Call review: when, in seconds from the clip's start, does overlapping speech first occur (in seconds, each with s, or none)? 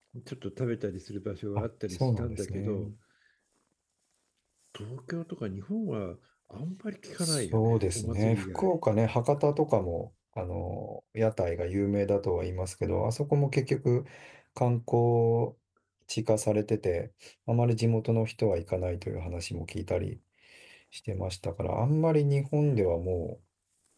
1.6 s